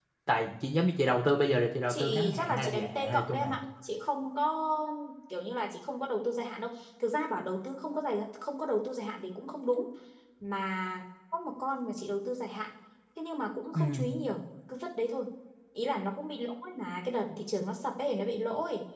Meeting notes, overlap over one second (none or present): present